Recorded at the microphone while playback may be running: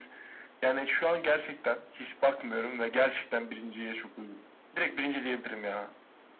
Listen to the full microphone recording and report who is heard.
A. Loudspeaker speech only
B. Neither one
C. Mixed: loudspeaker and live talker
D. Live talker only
A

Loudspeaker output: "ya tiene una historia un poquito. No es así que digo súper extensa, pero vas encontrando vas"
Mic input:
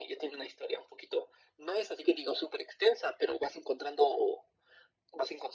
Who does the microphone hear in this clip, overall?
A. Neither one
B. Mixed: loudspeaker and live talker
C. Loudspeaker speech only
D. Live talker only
C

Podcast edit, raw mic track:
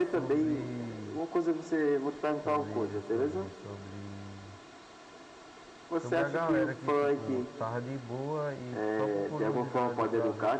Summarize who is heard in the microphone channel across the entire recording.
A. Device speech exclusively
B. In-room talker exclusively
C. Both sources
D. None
C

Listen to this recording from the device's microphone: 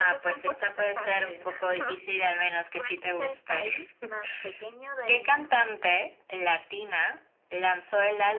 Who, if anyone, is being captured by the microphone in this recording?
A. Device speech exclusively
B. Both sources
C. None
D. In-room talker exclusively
B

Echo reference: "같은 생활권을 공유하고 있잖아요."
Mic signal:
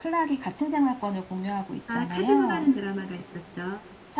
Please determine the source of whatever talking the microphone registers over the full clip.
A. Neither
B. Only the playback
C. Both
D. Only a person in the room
C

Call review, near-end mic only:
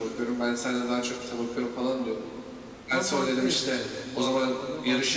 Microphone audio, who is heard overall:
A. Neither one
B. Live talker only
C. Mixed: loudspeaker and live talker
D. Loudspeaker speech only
C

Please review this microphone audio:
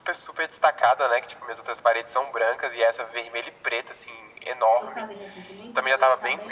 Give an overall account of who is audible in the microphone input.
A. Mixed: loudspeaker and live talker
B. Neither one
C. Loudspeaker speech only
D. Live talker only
A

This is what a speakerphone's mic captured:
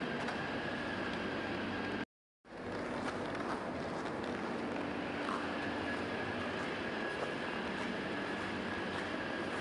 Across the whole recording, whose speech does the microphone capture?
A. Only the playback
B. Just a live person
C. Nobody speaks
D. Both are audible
C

